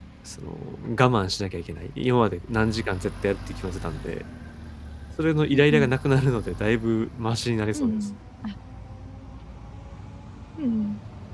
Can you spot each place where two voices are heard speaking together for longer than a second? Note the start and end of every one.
none

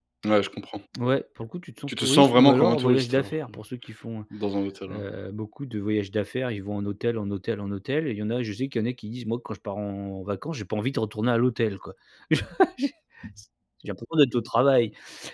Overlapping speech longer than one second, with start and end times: 1.9-3.6

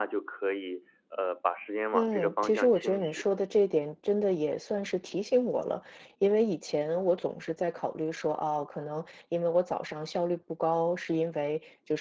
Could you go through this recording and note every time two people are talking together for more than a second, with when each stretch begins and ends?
1.9-3.2

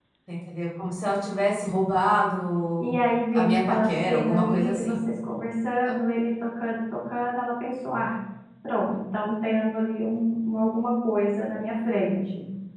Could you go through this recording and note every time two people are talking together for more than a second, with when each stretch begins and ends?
3.3-5.0

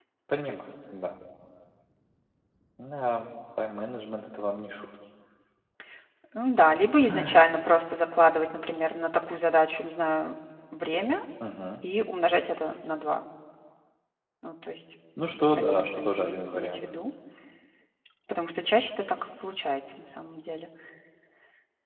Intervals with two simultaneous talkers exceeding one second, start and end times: 15.5-16.8

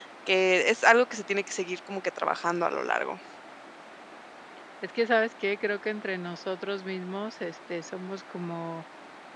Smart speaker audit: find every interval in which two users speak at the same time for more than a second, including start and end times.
none

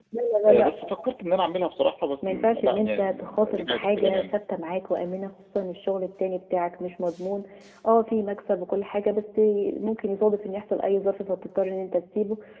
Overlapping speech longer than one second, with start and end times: 2.2-4.3

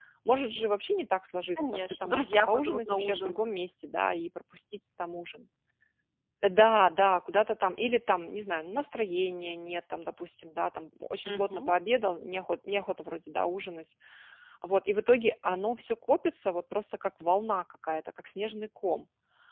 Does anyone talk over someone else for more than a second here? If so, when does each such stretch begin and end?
1.6-3.4

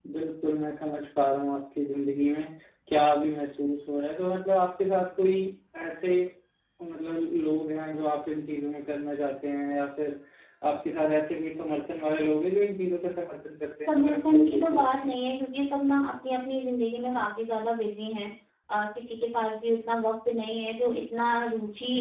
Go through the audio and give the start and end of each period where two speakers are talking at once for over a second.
13.9-15.1

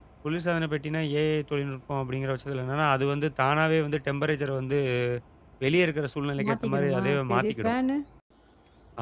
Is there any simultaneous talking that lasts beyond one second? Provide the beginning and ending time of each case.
6.4-7.7

